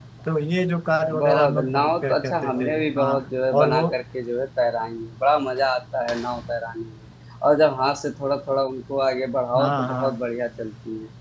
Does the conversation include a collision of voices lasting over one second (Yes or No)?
Yes